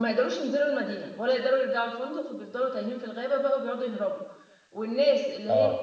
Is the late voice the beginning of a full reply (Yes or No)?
No